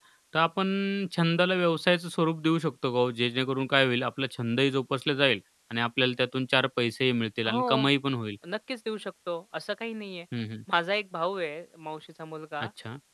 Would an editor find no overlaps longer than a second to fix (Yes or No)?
Yes